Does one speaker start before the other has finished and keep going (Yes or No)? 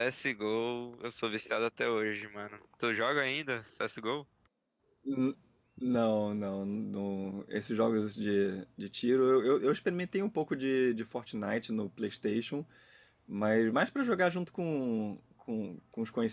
No